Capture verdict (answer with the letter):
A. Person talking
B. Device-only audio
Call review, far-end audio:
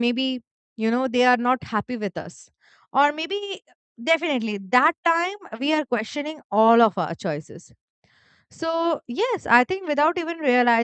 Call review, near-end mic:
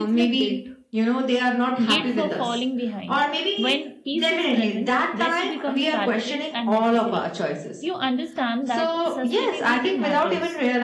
A